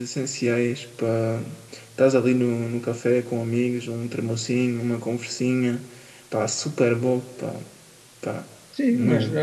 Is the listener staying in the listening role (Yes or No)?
No